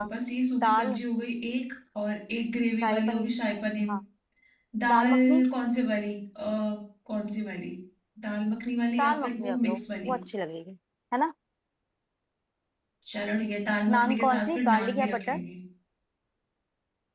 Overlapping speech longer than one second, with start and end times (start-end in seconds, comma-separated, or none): 9.0-10.2, 14.0-15.4